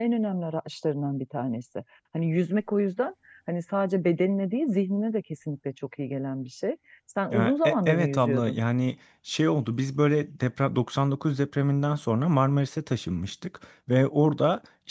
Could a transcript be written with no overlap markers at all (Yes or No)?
No